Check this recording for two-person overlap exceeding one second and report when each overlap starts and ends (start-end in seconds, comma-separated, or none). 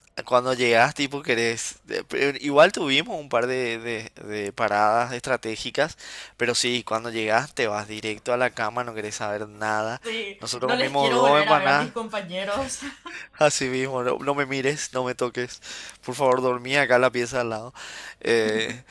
10.4-11.9